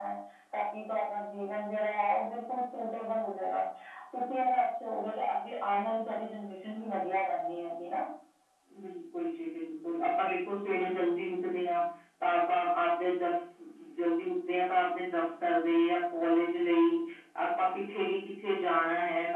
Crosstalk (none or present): none